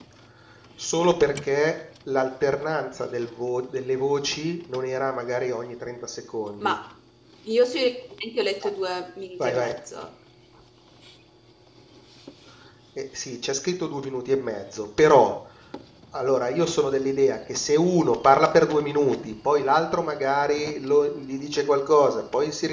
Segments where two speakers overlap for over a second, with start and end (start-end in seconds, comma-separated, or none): none